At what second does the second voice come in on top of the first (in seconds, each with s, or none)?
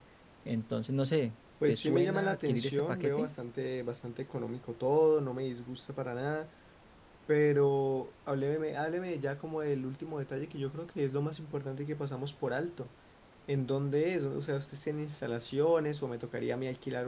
1.6 s